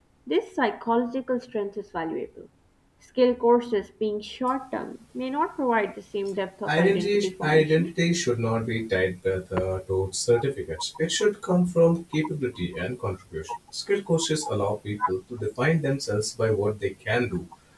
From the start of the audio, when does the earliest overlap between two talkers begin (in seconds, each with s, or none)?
6.7 s